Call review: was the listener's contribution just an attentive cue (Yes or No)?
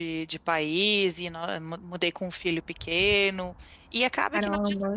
Yes